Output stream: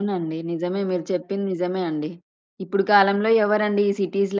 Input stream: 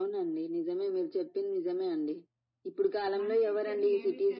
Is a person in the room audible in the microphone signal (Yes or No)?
Yes